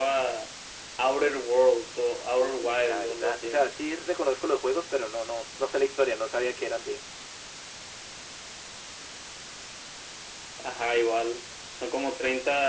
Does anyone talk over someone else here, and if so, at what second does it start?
2.4 s

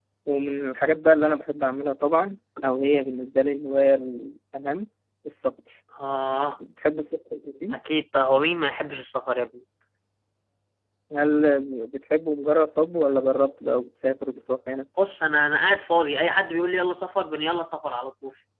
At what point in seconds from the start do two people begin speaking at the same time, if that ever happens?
none

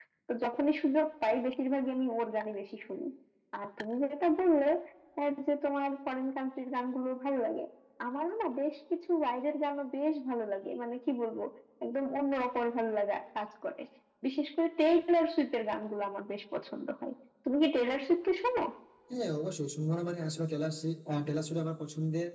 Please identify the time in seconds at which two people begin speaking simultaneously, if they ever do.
none

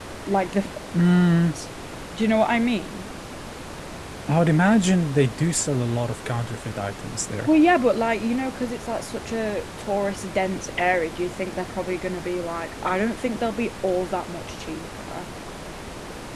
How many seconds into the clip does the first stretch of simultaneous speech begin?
none

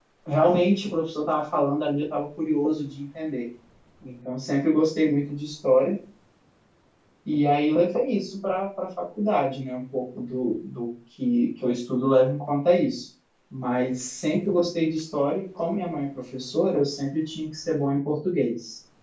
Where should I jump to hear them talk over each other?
none

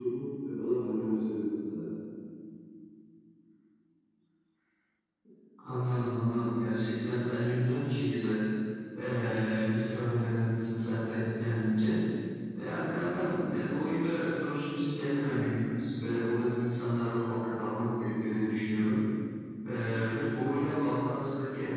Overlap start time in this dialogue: none

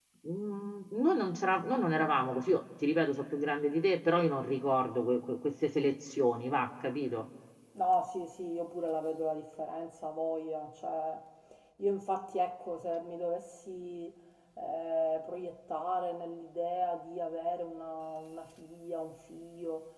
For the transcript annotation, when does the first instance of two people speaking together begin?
none

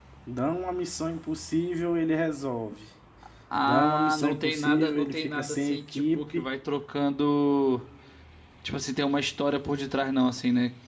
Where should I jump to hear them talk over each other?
3.6 s

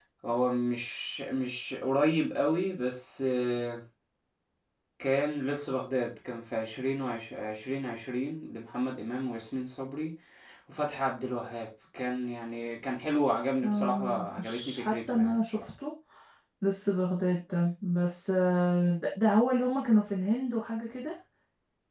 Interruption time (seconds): 13.6 s

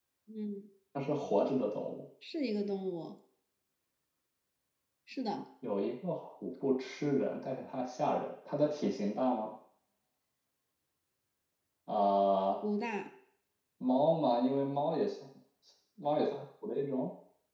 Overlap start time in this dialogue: none

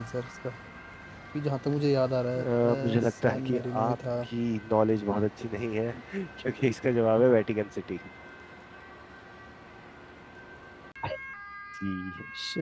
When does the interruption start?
2.4 s

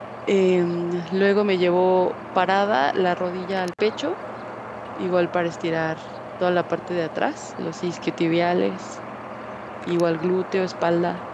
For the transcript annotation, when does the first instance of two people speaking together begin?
none

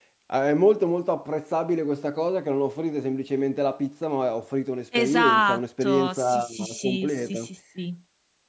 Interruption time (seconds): 4.9 s

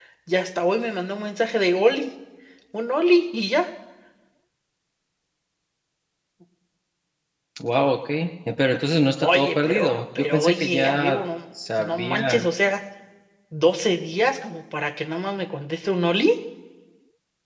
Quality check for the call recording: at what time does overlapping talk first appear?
9.2 s

